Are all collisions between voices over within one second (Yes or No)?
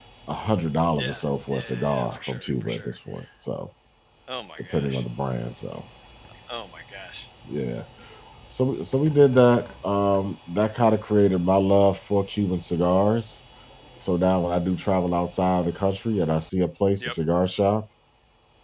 No